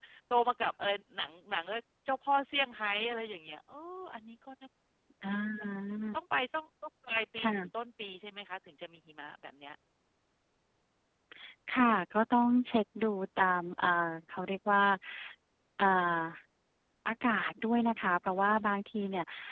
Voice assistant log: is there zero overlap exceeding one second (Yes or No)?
Yes